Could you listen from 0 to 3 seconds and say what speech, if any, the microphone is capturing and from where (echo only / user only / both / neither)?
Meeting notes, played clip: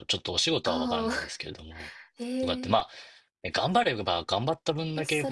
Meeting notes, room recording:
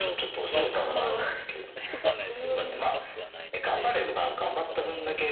both